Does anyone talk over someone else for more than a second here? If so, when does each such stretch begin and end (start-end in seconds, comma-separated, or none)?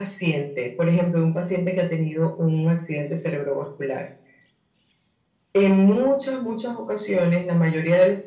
none